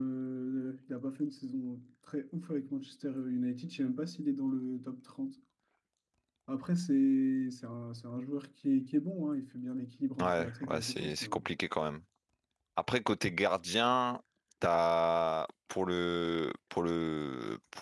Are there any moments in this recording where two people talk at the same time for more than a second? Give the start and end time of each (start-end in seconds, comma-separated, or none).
10.2-11.4